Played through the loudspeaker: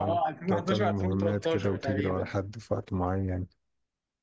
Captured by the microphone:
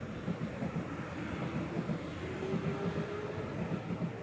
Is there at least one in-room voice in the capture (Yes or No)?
No